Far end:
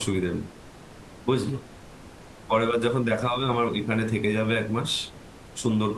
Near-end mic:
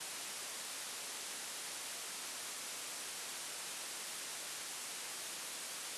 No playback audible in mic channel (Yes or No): Yes